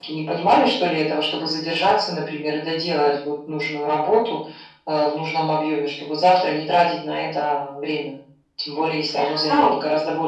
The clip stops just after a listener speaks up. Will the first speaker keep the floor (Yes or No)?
No